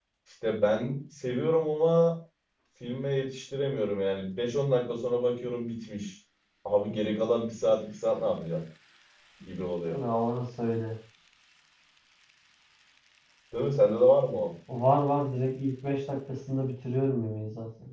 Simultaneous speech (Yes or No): No